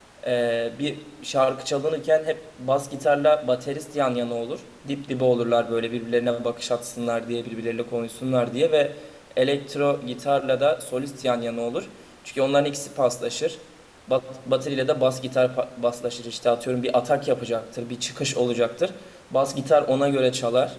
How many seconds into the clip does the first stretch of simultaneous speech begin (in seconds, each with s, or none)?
none